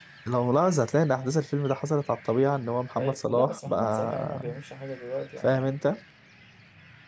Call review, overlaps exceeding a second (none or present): present